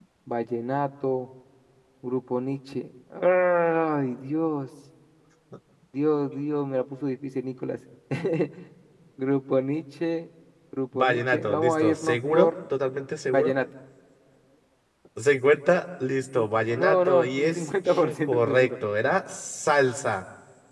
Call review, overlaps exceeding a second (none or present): present